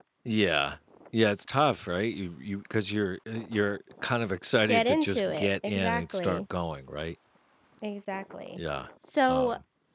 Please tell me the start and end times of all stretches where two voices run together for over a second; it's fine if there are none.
4.7-6.4

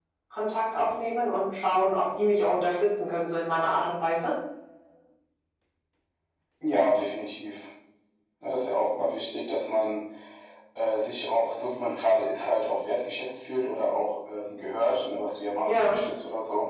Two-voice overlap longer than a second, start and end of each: none

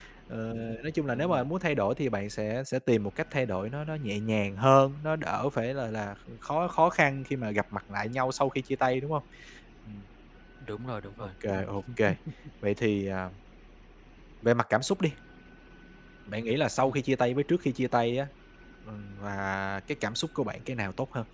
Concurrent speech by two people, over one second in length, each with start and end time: none

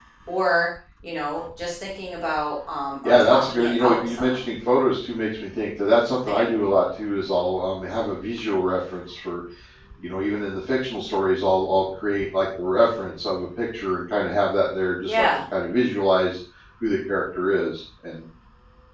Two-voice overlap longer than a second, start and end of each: 3.0-4.4

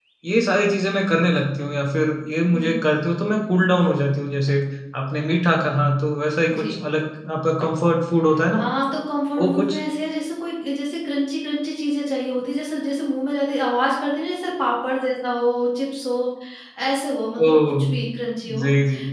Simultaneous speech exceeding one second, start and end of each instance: none

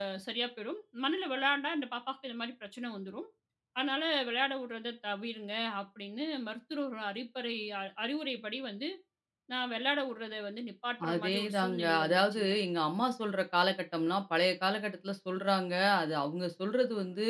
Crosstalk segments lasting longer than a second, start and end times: 11.1-12.5

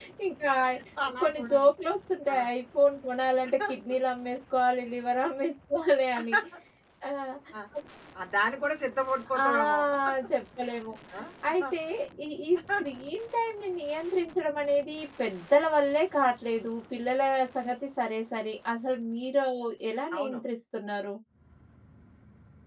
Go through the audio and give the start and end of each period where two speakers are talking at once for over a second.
none

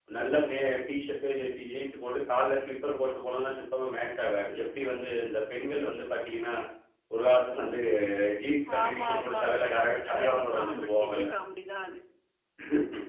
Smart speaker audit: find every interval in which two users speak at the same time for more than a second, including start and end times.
8.8-11.3

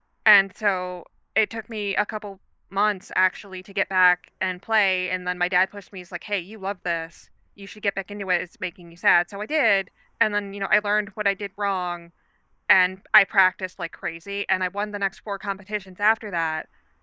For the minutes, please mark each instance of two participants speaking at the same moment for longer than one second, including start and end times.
none

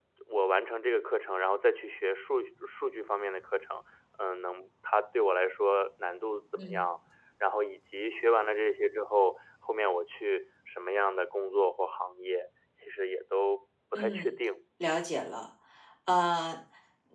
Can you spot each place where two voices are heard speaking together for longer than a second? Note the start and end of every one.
none

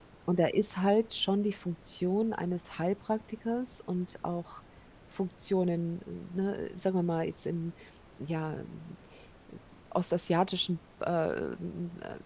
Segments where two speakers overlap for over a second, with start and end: none

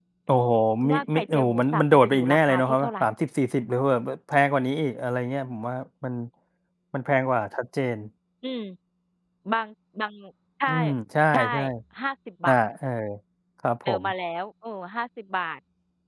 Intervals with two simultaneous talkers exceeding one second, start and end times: 0.9-2.9

